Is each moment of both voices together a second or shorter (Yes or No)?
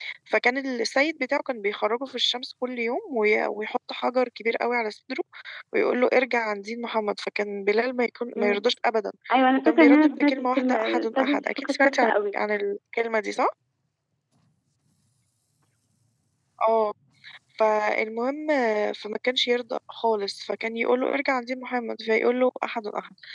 No